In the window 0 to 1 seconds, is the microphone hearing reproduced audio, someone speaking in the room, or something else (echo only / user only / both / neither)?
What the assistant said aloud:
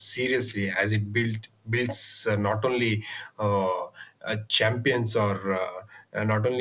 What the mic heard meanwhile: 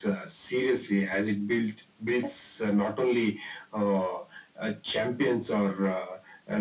echo only